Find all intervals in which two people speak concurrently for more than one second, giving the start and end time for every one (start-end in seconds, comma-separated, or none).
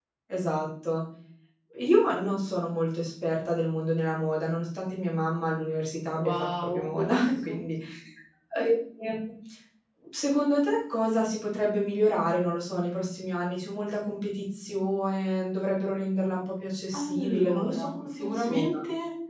6.2-7.6, 16.9-18.7